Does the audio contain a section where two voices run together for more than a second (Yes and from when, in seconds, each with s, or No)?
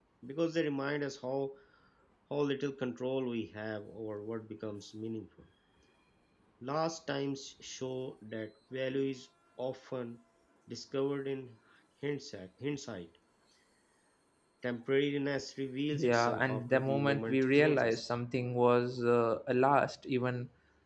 Yes, from 15.9 s